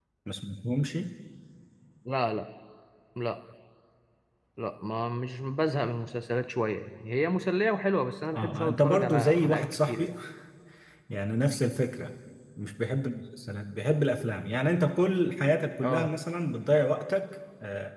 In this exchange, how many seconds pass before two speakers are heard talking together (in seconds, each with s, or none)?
8.3 s